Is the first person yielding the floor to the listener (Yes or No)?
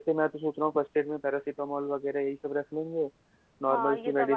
Yes